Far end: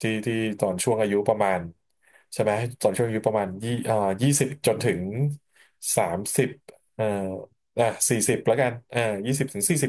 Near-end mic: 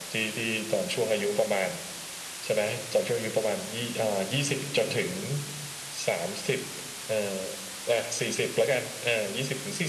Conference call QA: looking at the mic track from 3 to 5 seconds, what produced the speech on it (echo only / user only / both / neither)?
echo only